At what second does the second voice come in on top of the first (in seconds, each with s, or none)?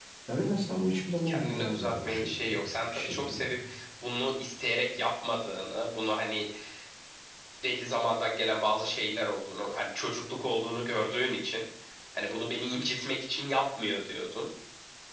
1.2 s